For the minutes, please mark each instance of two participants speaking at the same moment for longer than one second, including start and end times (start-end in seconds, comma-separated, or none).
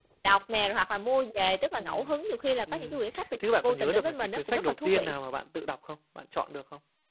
3.4-5.1